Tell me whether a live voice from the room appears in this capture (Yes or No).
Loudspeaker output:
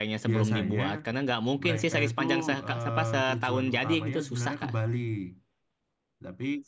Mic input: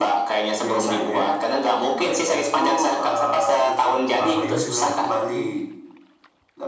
Yes